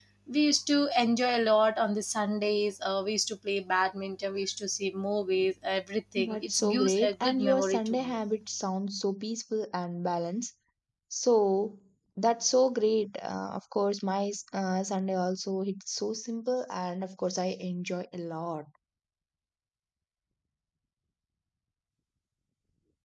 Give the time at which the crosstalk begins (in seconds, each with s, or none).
6.2 s